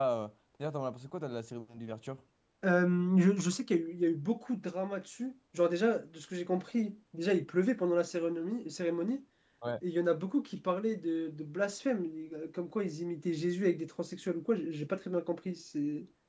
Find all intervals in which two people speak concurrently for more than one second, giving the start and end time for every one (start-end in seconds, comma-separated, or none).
none